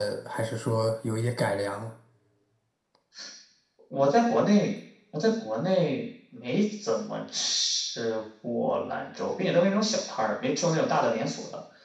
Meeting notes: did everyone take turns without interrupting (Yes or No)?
Yes